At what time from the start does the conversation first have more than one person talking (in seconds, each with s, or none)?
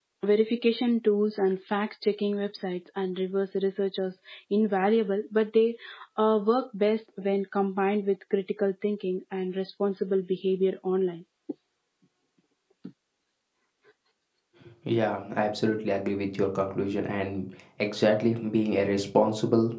none